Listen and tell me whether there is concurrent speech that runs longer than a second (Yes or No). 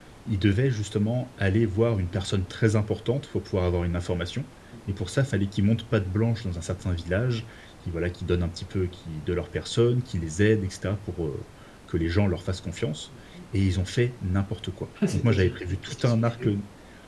Yes